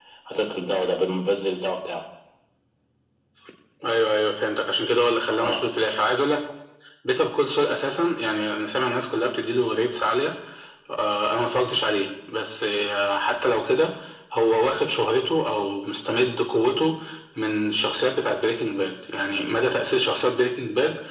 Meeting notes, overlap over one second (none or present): none